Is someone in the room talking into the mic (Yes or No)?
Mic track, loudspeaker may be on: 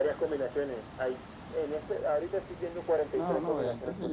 Yes